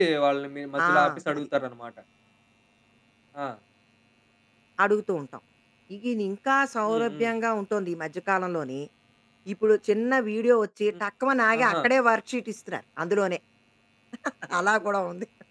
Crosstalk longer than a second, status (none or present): none